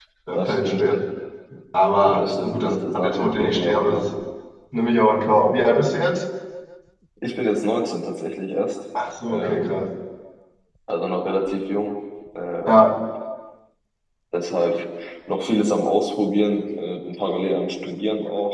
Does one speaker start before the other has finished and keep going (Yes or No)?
Yes